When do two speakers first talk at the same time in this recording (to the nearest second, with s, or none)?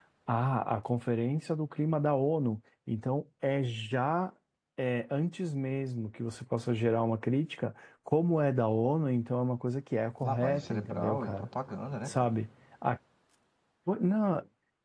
10 s